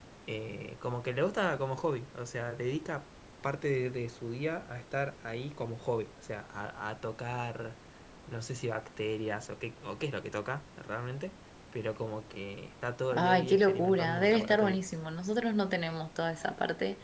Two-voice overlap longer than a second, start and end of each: 13.2-14.8

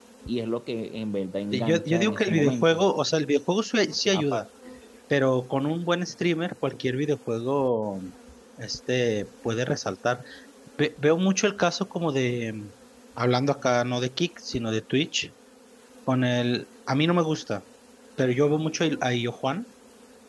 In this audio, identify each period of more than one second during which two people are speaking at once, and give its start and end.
1.5-2.8

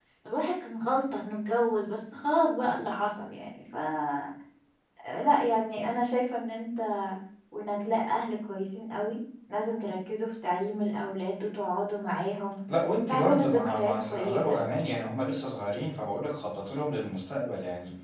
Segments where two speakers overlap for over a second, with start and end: 13.1-14.6

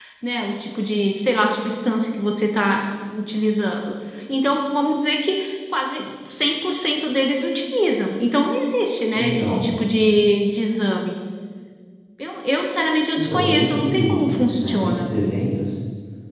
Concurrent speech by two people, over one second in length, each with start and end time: 13.2-15.1

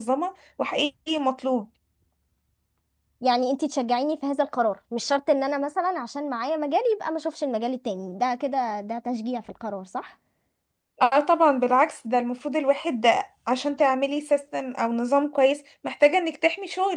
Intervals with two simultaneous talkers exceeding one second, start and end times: none

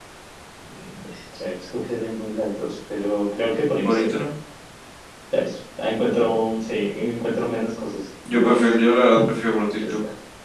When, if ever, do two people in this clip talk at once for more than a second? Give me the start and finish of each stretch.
none

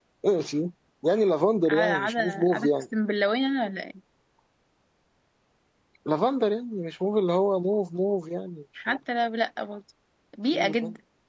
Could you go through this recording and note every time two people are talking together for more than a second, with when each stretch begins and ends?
1.7-2.9

